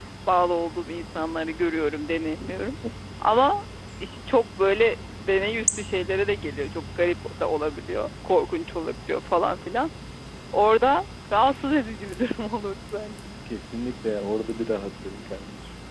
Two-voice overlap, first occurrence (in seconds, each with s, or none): none